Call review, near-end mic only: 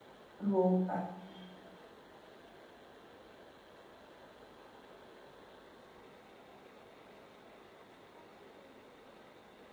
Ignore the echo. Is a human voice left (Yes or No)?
Yes